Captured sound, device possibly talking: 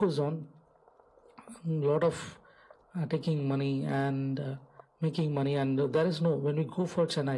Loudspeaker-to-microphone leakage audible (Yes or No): Yes